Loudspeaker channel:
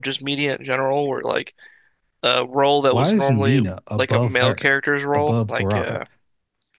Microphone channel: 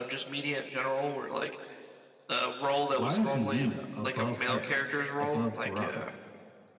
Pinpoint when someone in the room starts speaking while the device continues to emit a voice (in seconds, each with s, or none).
none